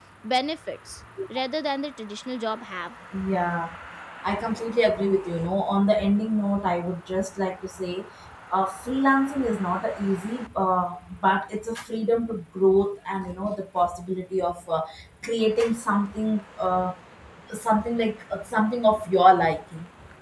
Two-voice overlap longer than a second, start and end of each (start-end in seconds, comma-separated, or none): none